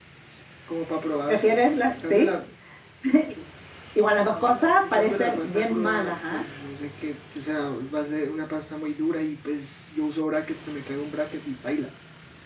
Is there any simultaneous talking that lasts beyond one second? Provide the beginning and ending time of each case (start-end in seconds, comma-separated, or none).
4.8-6.4